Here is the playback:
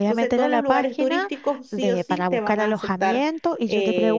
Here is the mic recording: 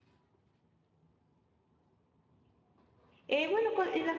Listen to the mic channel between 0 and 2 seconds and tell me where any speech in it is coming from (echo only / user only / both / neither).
neither